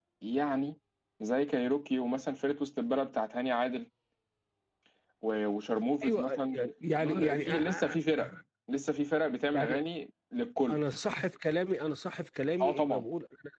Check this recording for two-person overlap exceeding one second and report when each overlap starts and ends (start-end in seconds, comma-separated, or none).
7.0-8.2